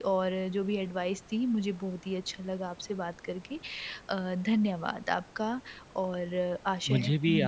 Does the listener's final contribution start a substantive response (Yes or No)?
Yes